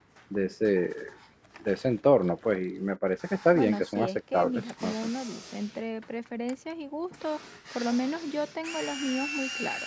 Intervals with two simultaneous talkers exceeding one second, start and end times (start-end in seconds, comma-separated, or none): 3.5-4.9